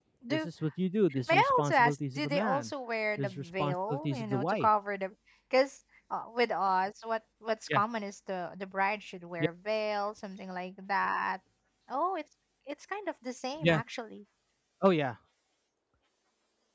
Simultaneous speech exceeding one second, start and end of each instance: 1.3-2.7, 3.2-4.7

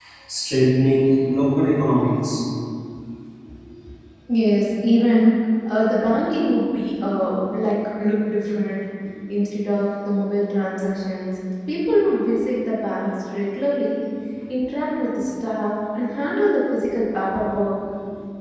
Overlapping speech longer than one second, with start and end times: none

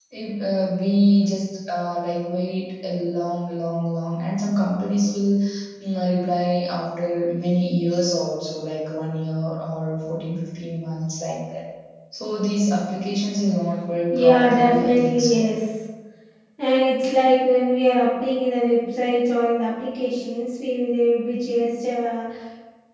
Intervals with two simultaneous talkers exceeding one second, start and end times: 14.1-15.5

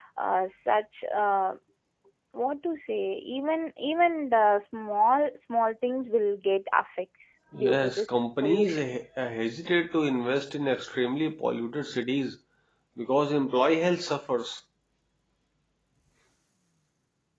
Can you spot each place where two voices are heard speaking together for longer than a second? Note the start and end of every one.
7.5-9.0

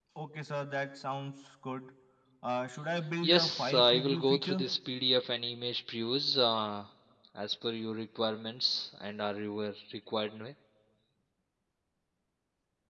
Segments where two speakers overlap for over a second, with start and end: 3.2-4.6

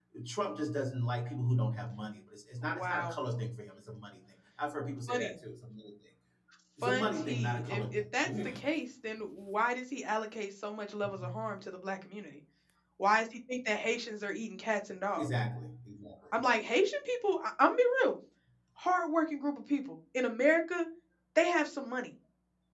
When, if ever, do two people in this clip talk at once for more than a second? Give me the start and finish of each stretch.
6.8-8.5

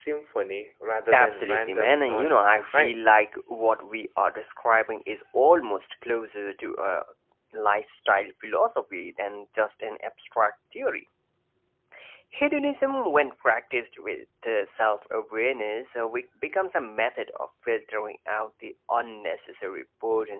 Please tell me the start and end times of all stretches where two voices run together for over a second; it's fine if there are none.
1.1-2.9

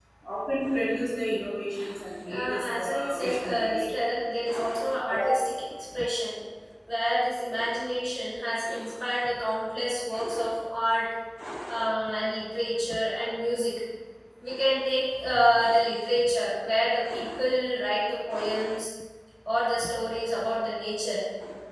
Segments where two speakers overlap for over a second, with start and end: 2.4-3.9

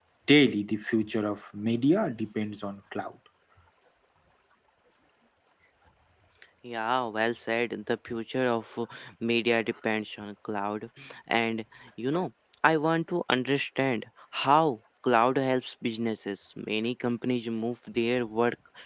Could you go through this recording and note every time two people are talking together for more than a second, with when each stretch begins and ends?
none

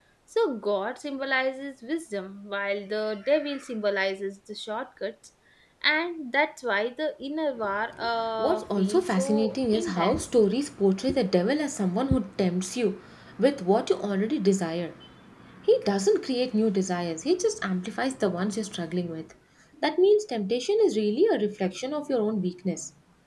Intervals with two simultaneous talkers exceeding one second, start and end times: 8.4-10.4

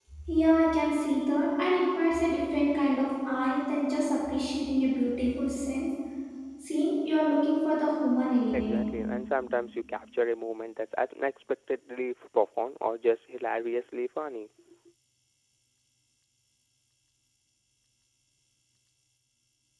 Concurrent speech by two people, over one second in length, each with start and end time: none

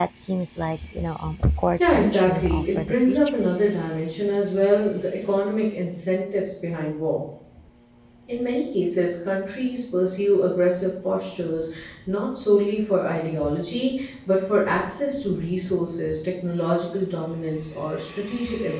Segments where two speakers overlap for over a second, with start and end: 1.8-3.2

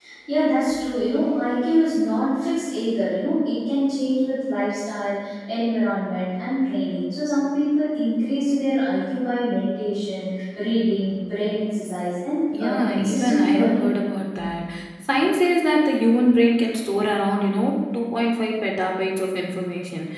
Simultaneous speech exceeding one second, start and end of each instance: 12.6-13.9

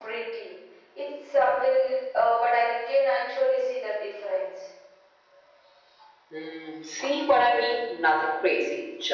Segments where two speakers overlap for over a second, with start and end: none

